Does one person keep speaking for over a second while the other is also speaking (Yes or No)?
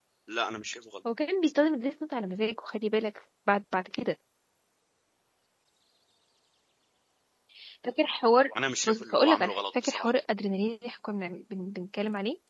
Yes